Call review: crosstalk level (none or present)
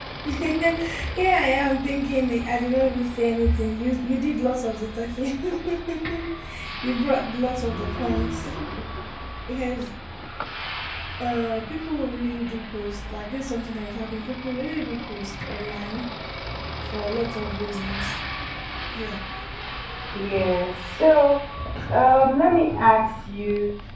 none